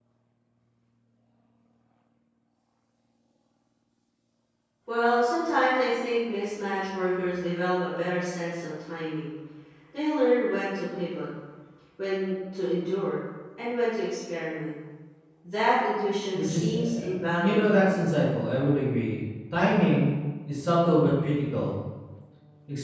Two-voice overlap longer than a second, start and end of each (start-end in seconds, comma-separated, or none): 16.3-17.8